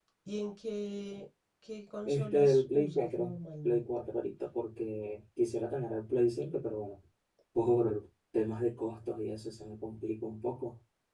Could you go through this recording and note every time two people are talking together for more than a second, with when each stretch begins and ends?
2.0-3.8

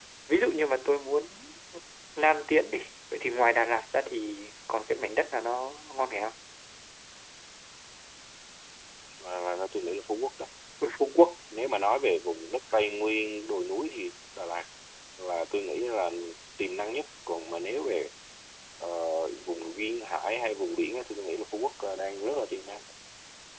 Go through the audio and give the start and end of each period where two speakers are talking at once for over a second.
none

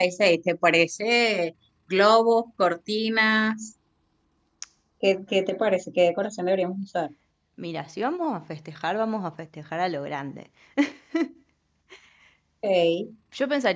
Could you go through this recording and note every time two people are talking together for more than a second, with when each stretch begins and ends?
none

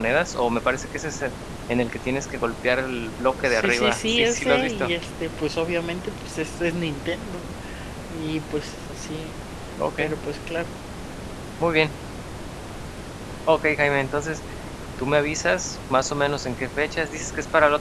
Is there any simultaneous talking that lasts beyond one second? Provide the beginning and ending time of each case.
3.4-4.9

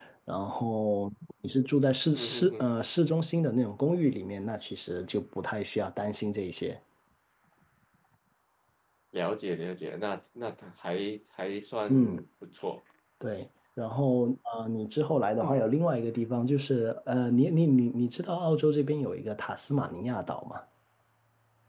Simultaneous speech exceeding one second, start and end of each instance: none

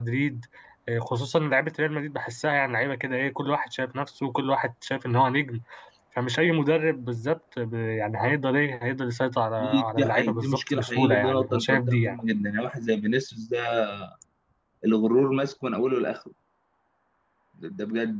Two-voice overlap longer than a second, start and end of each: 9.6-12.2

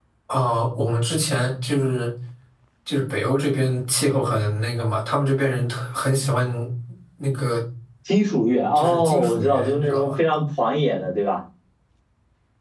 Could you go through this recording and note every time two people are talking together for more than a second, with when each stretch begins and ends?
8.8-10.1

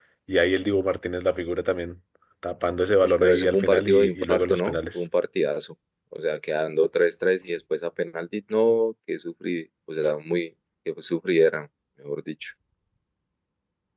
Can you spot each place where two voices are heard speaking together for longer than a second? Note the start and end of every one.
3.0-5.0

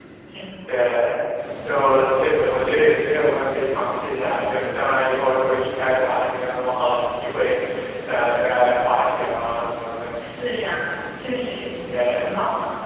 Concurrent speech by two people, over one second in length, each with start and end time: none

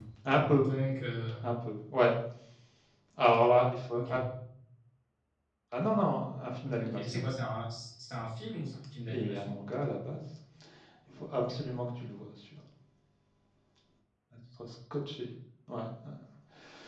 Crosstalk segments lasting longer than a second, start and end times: none

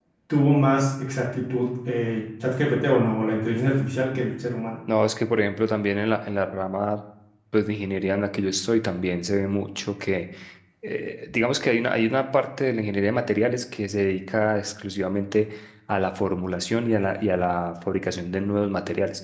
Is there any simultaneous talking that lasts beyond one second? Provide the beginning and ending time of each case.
none

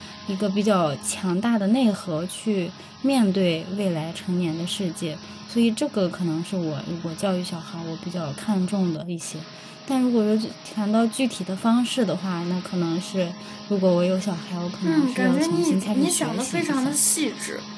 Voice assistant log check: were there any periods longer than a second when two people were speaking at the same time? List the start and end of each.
14.8-16.9

